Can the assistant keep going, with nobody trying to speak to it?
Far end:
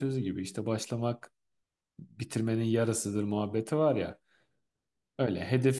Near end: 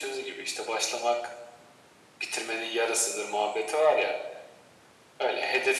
Yes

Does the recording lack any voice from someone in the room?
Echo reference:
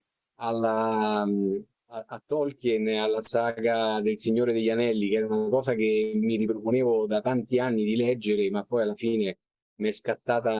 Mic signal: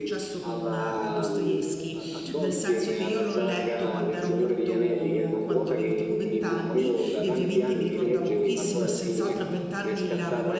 No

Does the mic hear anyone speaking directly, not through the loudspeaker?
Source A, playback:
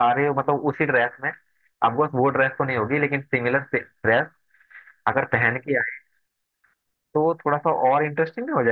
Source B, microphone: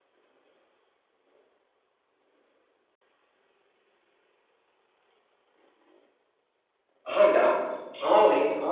Yes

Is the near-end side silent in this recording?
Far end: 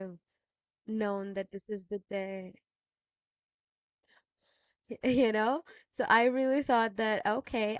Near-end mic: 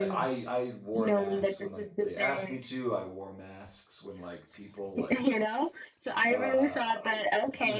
No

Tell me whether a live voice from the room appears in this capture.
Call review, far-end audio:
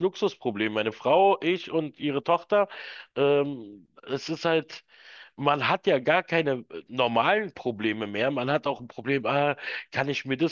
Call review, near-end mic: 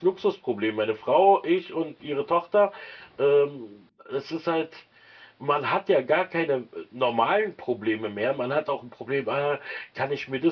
No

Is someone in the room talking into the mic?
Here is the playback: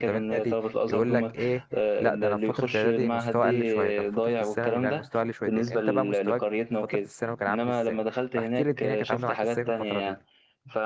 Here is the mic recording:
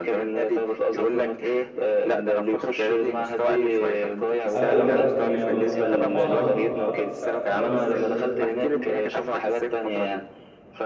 Yes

